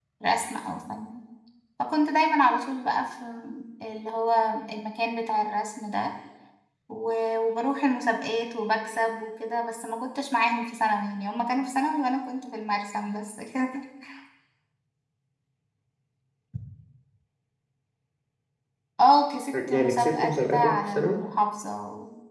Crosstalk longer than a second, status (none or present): present